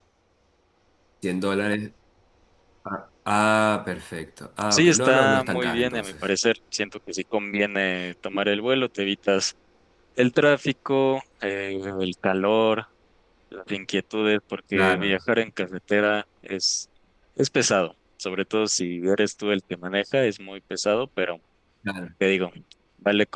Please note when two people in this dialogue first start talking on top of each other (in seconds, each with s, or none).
4.7 s